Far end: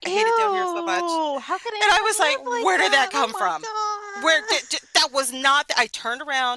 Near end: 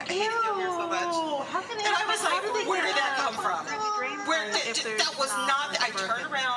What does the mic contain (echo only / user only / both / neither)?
both